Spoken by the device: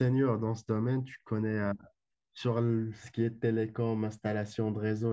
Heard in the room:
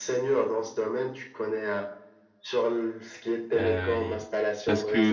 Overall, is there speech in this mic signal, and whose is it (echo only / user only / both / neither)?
both